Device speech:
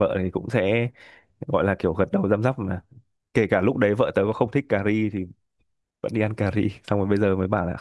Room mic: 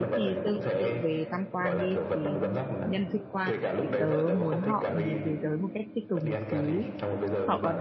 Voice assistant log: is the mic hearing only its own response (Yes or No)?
No